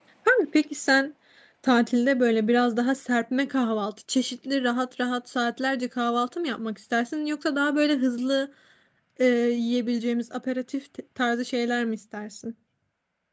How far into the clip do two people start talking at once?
none

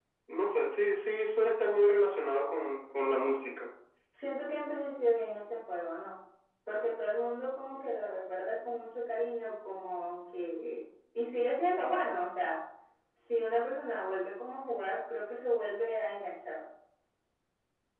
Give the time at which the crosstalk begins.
none

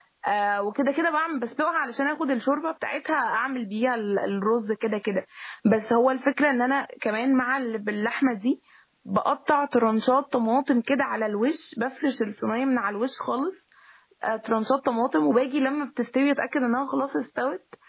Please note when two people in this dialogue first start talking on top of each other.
none

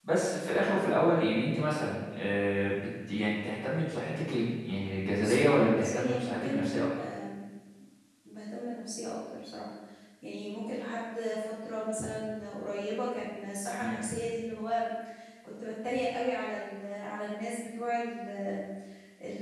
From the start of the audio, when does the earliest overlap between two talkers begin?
5.2 s

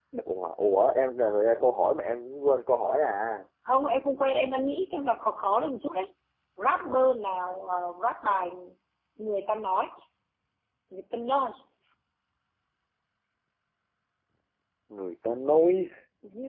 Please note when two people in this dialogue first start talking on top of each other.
none

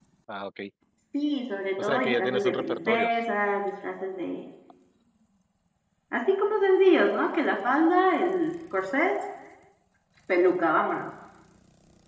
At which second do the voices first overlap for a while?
1.8 s

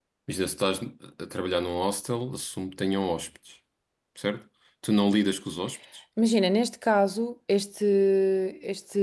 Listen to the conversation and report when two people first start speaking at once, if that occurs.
none

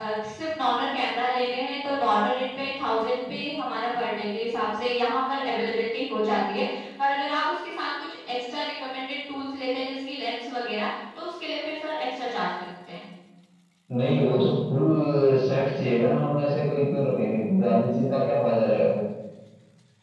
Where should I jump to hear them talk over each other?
none

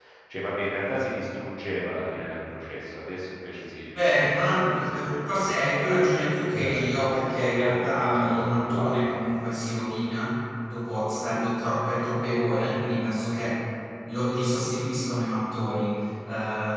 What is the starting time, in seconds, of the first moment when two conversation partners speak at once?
3.9 s

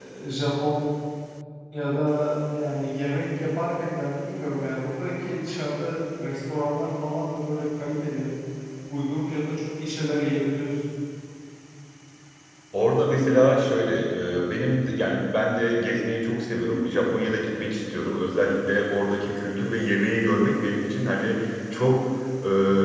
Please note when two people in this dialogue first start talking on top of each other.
none

